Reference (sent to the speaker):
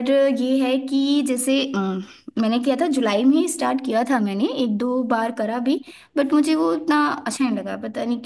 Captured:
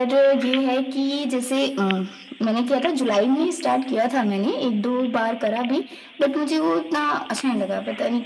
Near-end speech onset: none

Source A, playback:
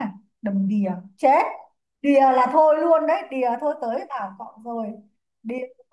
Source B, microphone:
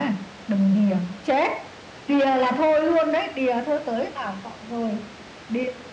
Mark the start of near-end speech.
none

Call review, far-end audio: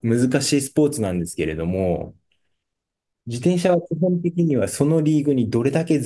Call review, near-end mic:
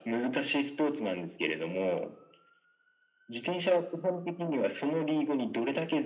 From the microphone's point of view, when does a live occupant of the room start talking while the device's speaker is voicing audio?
none

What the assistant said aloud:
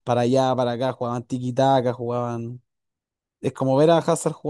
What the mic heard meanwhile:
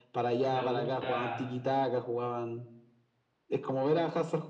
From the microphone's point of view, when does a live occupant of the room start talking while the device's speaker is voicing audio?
0.4 s

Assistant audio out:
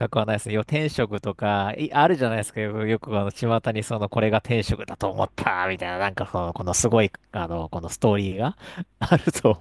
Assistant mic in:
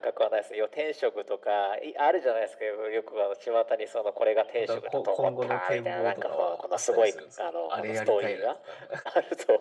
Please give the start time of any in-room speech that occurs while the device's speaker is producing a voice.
4.5 s

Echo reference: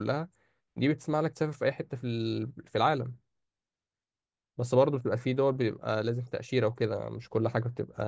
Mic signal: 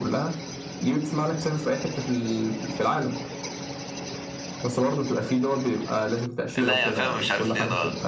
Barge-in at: 6.6 s

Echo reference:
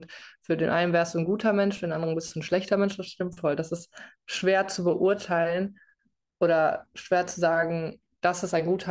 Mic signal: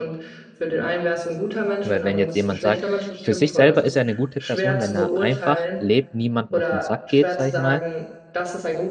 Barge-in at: 1.9 s

